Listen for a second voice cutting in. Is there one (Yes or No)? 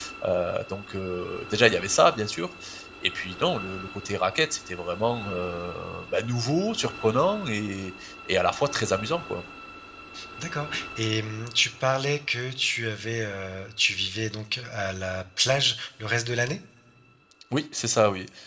No